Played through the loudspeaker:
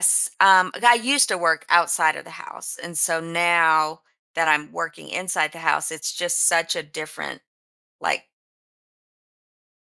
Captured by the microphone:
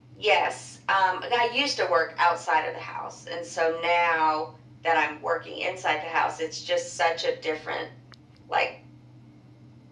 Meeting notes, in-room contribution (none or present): none